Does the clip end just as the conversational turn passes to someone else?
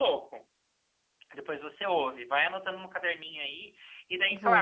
No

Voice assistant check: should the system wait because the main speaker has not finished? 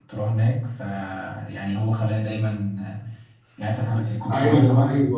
No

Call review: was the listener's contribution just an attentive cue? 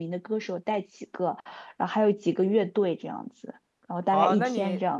No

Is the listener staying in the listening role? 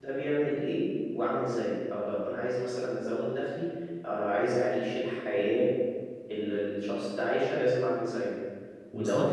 Yes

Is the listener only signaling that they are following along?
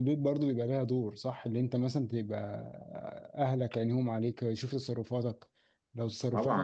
No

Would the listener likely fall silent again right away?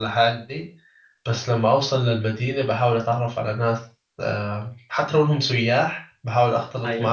Yes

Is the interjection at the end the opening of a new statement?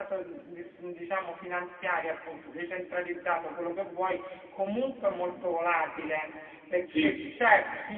No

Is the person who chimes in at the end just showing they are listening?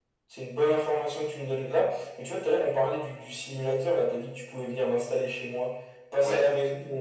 Yes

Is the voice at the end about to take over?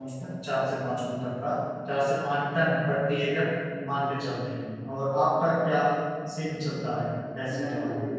Yes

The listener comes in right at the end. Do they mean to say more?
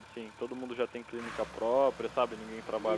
Yes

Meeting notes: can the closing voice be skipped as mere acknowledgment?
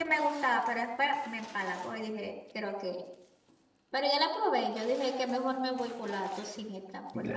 No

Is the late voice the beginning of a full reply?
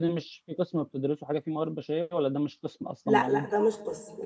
Yes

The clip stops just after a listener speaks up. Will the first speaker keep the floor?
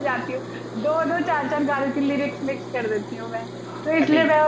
Yes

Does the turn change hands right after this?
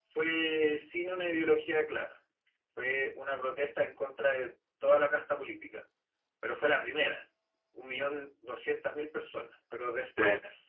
No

